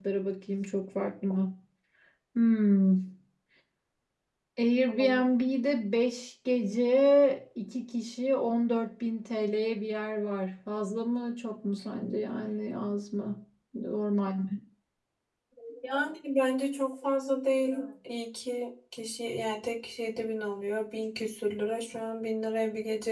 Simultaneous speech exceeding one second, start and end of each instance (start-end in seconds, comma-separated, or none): none